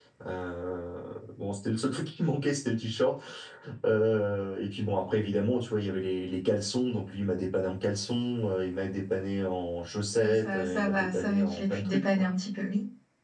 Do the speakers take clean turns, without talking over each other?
No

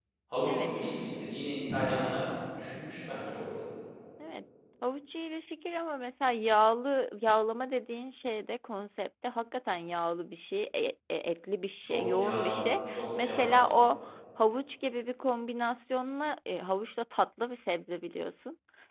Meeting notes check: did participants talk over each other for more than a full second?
Yes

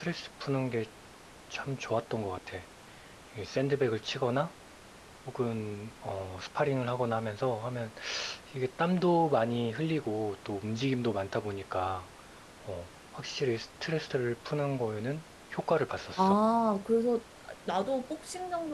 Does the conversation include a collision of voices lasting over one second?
No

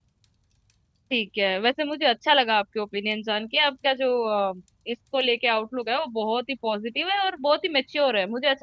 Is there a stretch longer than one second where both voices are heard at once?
No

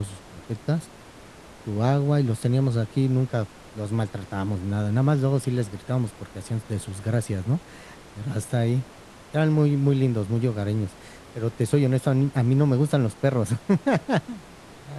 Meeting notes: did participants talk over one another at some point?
No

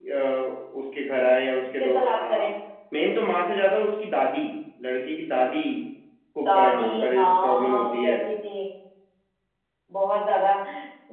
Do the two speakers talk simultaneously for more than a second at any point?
Yes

